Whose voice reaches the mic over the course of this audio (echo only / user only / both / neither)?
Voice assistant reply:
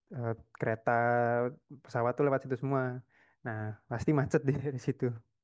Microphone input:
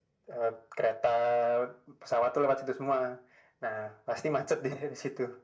echo only